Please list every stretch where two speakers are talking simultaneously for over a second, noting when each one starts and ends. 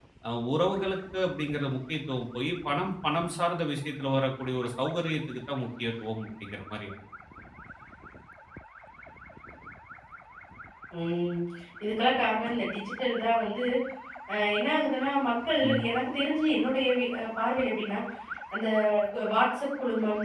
none

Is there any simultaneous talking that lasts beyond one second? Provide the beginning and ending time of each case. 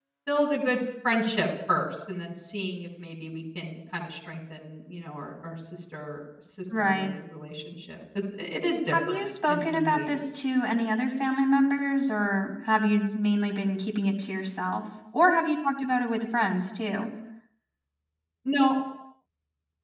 8.9-10.5

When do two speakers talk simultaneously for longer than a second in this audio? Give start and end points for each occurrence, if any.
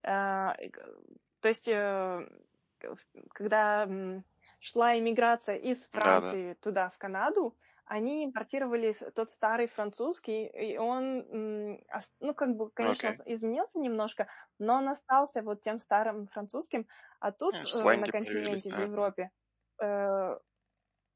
17.6-18.9

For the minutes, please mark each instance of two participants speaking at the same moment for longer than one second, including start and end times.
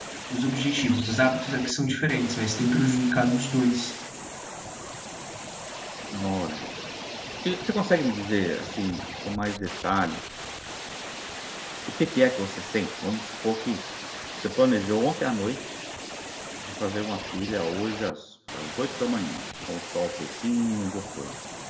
none

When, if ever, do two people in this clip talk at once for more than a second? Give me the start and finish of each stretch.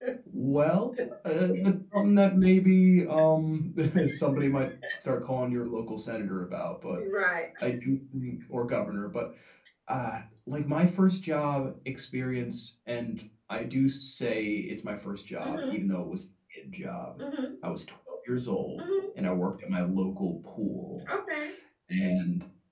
none

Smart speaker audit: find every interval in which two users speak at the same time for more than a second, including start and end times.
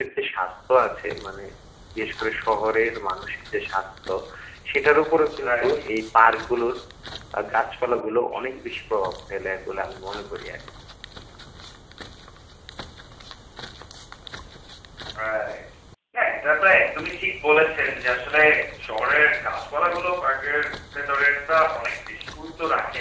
none

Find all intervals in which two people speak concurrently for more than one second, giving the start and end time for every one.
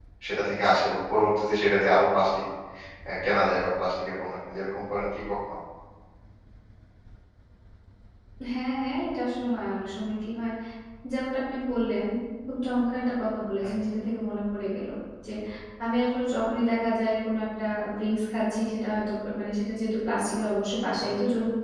none

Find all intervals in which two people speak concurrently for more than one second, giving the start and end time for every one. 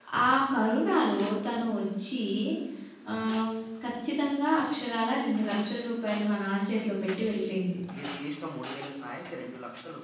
none

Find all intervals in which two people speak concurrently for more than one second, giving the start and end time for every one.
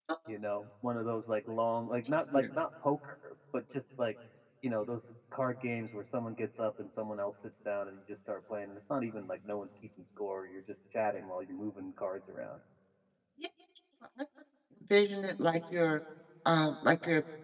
none

